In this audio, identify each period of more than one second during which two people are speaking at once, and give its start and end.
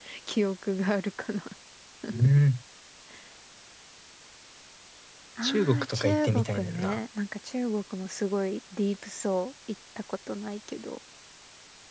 5.4-7.0

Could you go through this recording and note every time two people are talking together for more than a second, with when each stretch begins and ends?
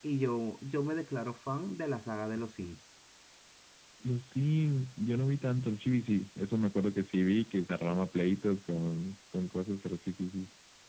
none

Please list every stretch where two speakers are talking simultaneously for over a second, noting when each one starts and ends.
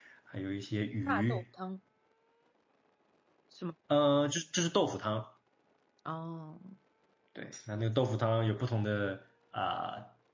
none

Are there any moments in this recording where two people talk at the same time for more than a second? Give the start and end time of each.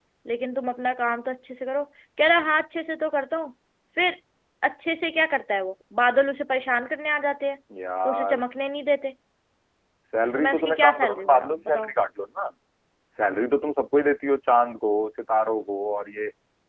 10.3-11.9

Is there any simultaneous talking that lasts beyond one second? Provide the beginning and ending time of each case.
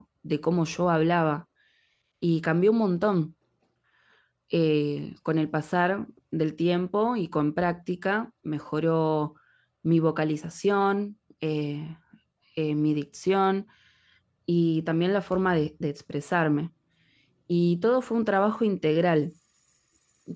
none

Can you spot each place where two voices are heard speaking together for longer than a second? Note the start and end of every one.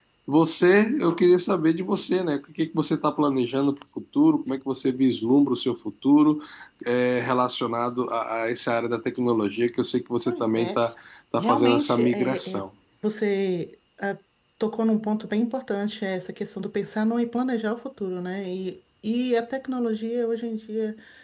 11.4-12.6

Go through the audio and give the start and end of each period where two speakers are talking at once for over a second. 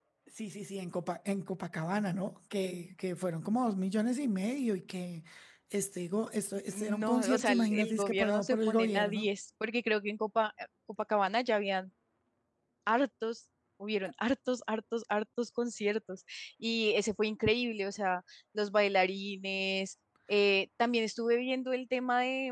6.7-9.3

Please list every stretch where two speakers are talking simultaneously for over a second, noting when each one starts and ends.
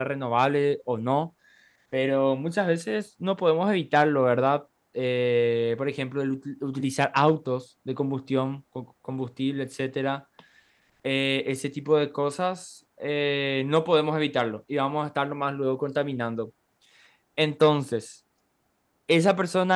none

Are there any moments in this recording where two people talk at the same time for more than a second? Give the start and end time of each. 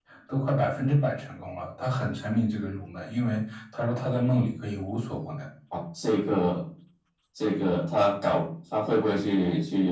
none

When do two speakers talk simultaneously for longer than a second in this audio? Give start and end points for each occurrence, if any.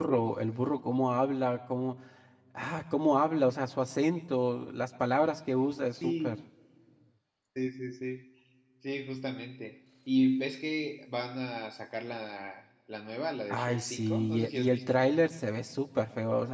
13.5-15.1

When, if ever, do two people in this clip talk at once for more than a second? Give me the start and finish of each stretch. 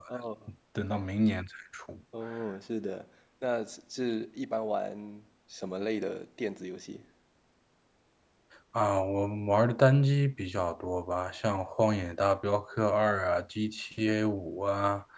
none

